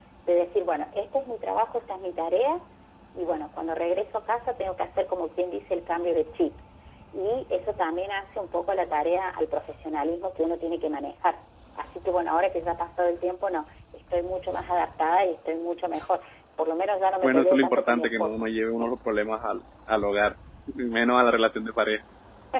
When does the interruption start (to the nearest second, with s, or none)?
17 s